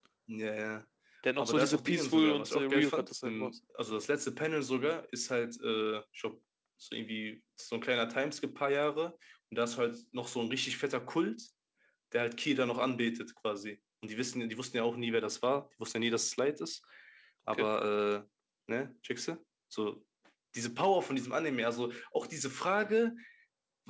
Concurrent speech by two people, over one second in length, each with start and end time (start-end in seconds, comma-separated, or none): 1.4-3.5